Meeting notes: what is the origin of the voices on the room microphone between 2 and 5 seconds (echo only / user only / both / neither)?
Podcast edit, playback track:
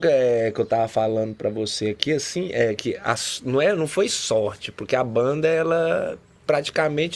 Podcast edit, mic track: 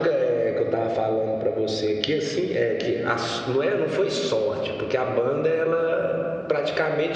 echo only